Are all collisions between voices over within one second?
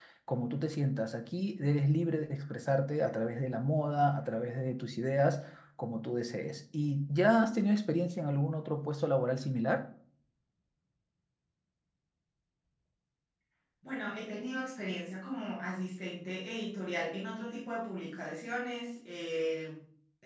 Yes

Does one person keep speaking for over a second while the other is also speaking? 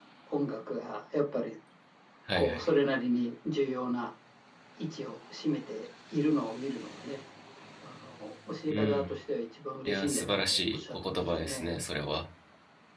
Yes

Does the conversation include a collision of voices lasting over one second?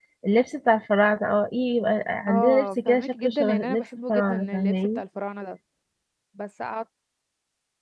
Yes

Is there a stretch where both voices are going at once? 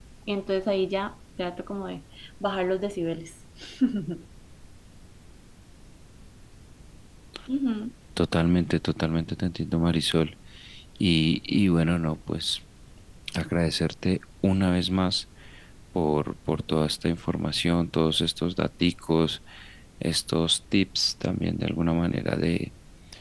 No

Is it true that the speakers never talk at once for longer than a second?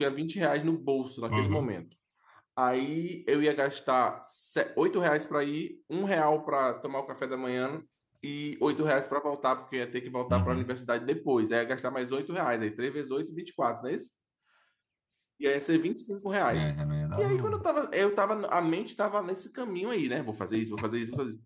Yes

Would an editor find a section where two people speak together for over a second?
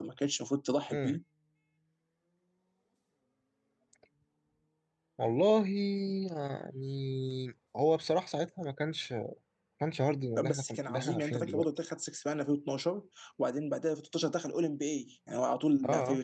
Yes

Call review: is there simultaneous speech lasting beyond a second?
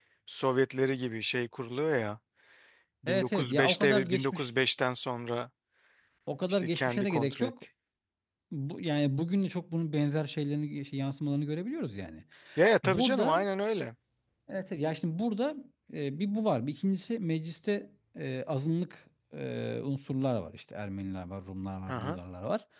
Yes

